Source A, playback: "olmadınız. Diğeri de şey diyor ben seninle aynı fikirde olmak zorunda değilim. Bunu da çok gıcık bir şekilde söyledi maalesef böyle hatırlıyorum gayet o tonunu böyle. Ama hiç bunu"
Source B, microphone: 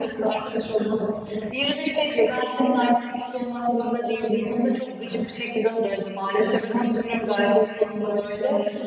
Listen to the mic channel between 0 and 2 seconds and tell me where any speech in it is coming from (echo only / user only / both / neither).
echo only